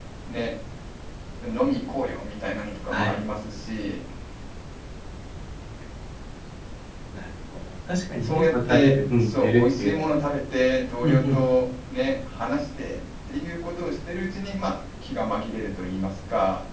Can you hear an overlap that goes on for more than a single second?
Yes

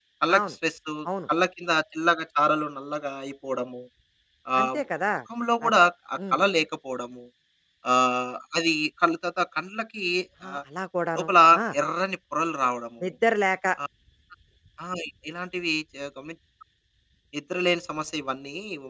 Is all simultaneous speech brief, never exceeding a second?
Yes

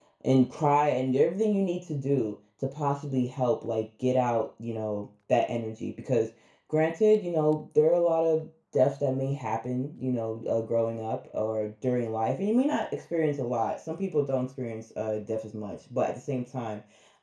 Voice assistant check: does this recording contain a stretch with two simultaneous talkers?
No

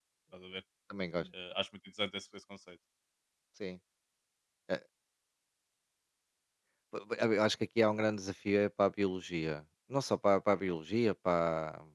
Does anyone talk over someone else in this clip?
No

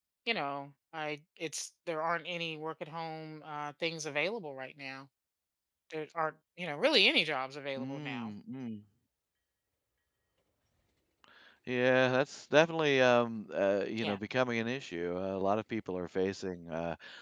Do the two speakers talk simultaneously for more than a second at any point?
No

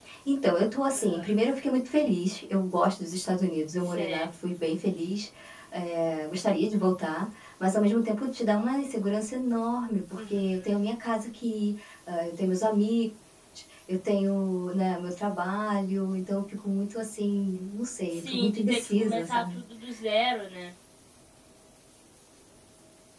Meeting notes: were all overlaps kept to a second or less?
No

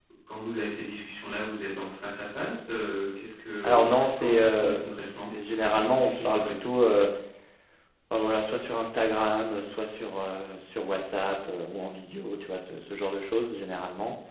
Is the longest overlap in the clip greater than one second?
Yes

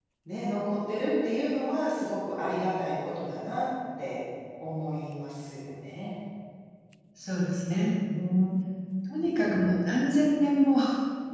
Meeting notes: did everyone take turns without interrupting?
Yes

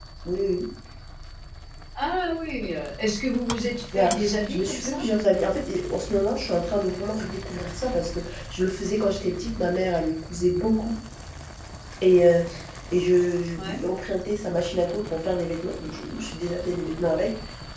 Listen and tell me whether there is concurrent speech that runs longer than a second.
No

